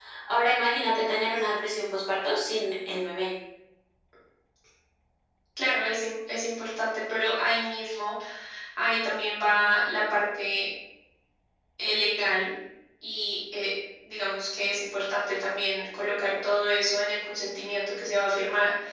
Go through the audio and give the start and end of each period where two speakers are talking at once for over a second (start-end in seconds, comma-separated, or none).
none